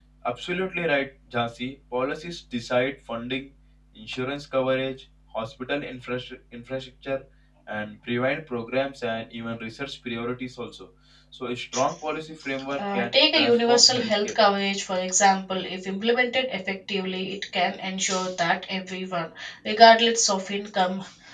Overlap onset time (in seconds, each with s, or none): 12.7 s